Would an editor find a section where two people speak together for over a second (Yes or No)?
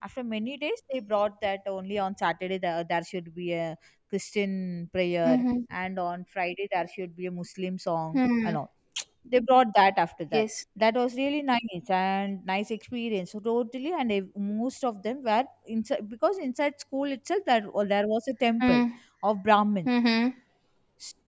No